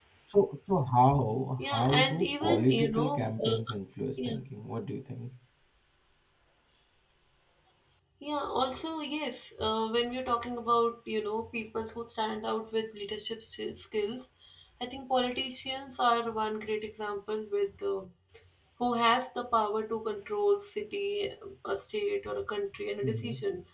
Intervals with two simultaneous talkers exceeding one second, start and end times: 1.6-3.6

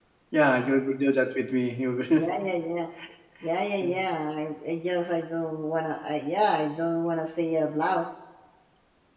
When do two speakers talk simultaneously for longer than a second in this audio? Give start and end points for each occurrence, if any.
none

